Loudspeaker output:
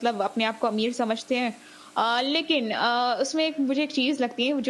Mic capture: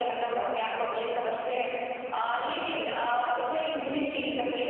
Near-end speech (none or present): none